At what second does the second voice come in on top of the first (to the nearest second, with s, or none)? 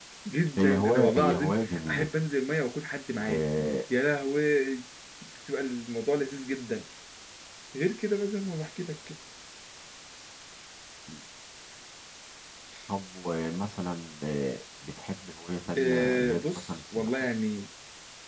1 s